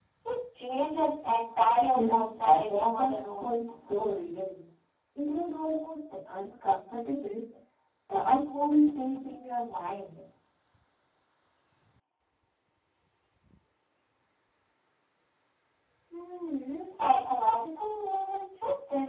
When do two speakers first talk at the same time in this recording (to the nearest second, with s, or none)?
2 s